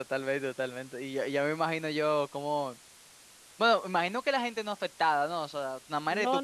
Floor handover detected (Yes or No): Yes